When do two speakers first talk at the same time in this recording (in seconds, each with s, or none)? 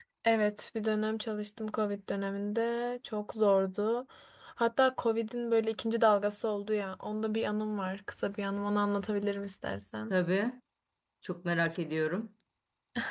none